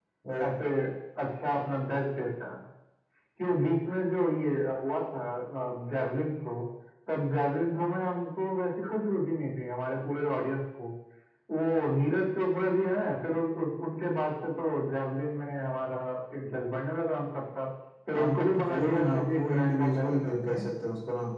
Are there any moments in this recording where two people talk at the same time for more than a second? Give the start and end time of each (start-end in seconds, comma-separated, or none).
18.1-20.7